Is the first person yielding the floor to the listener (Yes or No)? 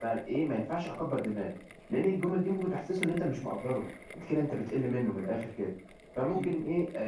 No